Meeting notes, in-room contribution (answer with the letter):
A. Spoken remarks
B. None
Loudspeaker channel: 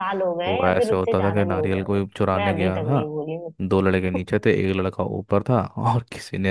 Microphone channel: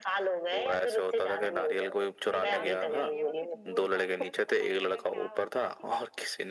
A